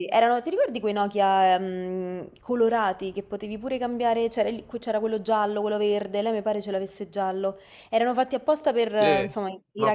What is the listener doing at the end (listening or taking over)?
taking over